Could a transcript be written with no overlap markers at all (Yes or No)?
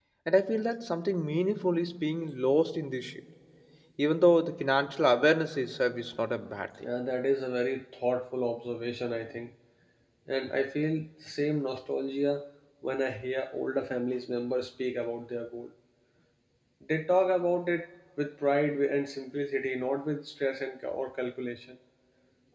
Yes